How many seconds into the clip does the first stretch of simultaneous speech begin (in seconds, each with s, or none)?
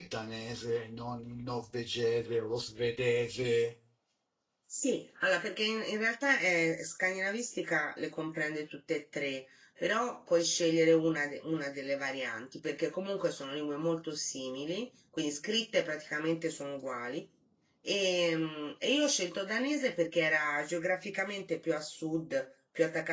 none